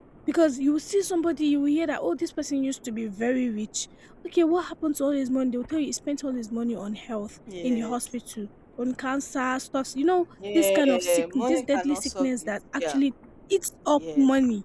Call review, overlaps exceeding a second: present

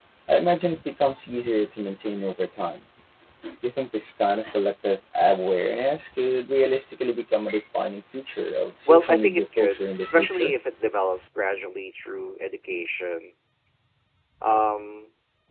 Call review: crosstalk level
present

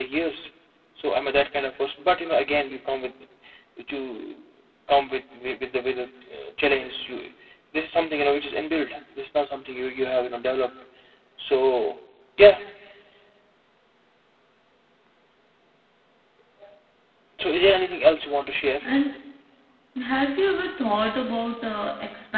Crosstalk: none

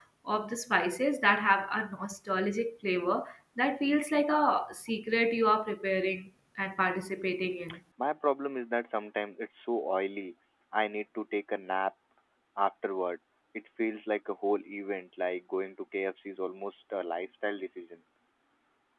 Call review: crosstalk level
none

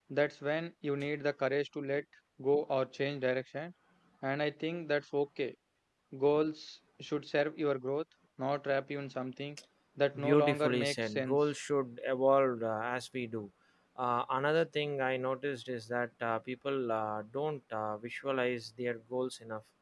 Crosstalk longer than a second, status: present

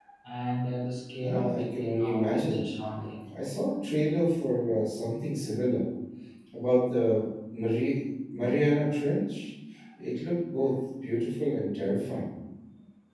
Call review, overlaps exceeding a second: present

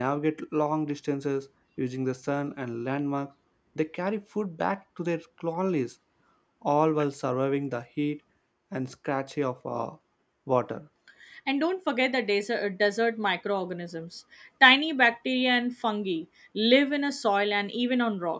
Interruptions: none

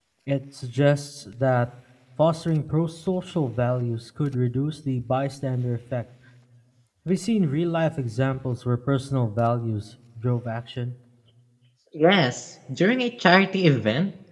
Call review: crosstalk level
none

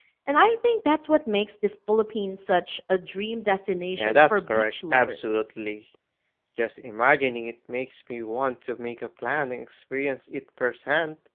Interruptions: present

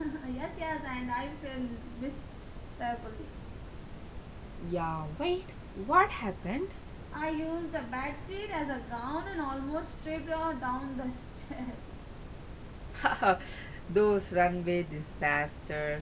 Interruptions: none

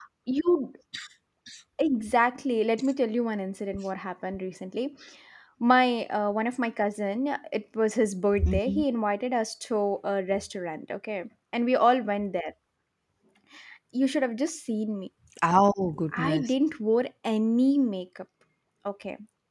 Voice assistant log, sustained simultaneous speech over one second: none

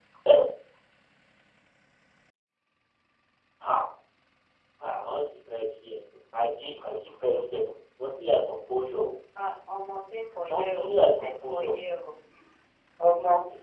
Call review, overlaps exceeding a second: present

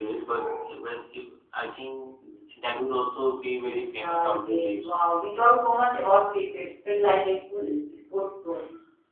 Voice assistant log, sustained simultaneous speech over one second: present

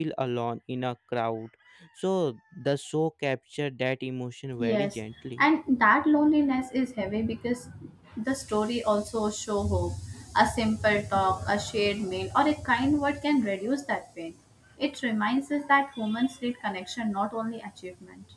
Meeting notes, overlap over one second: none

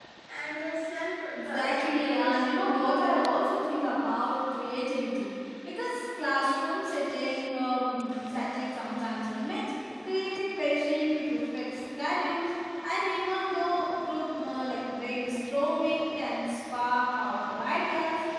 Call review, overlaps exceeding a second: present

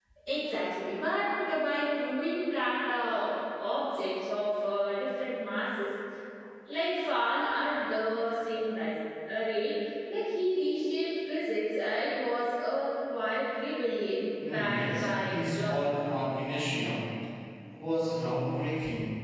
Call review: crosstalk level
present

